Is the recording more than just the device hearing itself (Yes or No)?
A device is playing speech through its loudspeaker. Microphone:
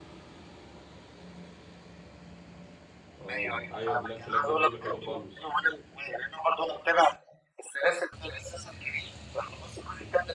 Yes